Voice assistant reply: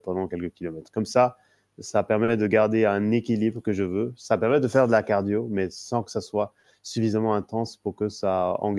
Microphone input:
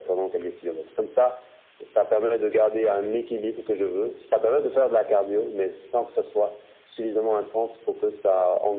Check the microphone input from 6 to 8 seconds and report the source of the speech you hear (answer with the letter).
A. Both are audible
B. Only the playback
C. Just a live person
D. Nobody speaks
B